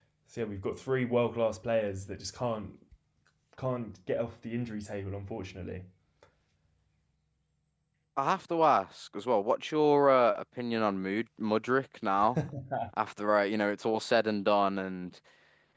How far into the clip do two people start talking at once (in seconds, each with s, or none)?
none